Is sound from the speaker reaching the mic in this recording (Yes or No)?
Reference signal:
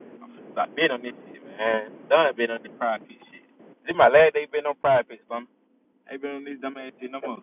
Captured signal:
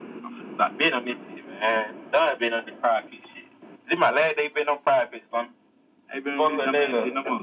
Yes